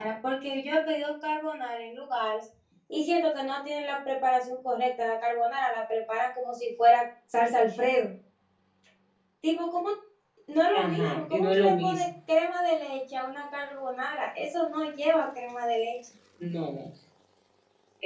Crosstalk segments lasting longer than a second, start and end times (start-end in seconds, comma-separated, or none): 10.7-12.1